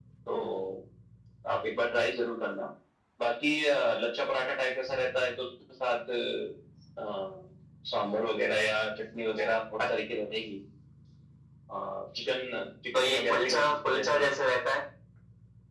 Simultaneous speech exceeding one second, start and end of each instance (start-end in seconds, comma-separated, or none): 12.9-14.3